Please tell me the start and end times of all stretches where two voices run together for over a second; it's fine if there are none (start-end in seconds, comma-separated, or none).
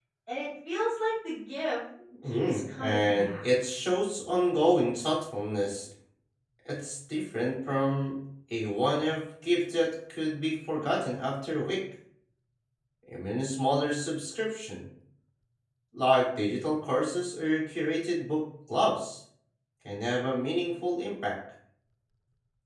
2.2-3.5